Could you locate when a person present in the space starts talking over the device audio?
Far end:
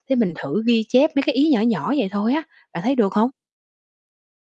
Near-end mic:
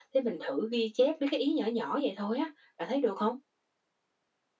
none

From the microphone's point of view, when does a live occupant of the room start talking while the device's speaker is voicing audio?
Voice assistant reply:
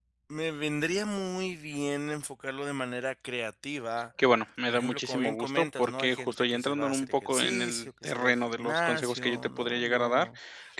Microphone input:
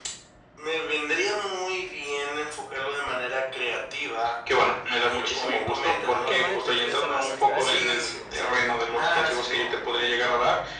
5.9 s

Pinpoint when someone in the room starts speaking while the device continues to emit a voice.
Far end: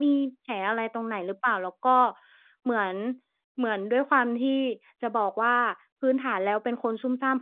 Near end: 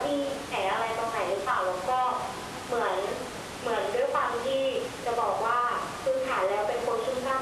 none

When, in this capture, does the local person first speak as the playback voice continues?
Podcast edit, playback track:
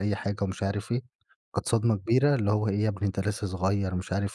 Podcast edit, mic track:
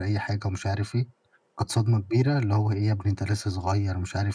none

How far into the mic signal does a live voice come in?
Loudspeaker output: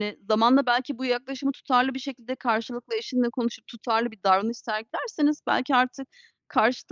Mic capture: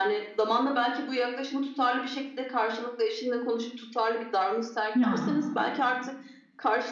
5.0 s

